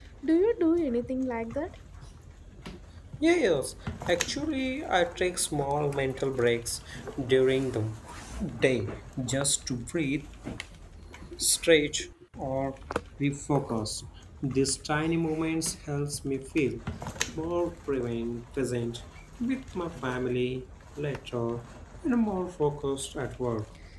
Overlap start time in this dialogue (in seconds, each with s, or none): none